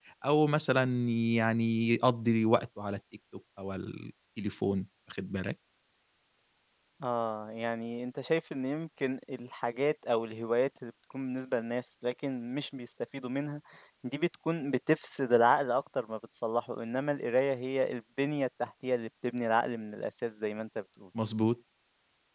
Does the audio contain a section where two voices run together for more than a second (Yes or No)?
No